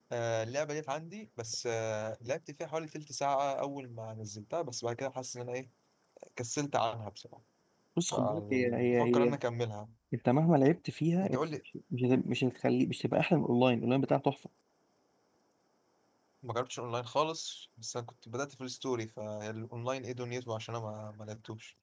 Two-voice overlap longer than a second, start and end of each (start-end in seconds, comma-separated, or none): 8.1-9.3